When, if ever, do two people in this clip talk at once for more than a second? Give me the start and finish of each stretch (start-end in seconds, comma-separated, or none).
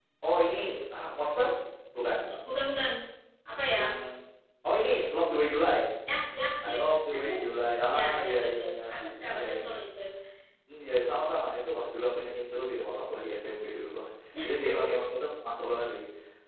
7.9-9.8